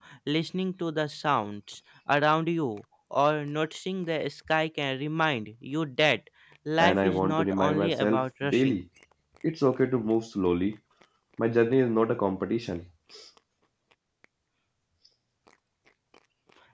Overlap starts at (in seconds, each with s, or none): 6.8 s